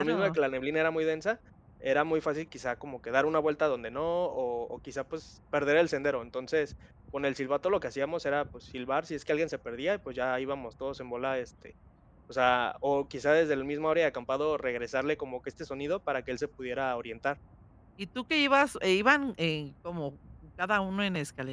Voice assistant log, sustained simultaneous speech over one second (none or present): none